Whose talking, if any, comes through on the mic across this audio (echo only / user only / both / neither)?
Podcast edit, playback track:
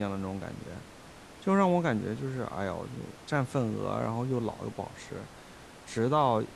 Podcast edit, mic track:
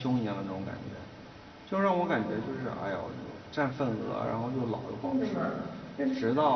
both